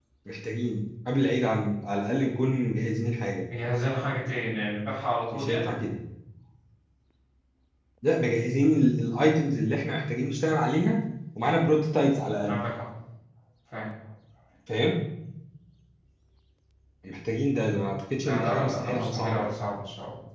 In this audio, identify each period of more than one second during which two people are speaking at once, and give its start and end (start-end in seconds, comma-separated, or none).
18.2-19.5